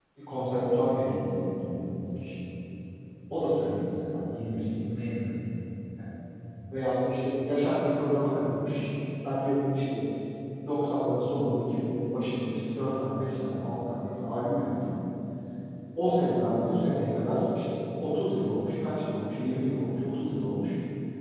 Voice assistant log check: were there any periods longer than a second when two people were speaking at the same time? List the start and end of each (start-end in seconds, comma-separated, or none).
none